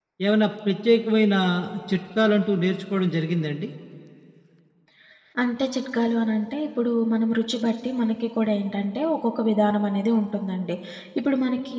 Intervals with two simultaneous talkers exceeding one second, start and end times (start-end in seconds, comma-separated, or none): none